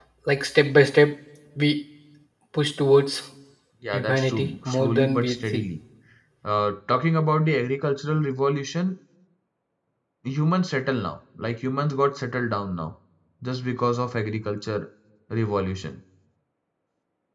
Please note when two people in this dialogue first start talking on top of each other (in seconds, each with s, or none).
3.9 s